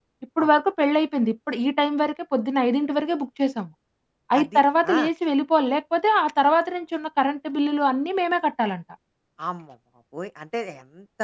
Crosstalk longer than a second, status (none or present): none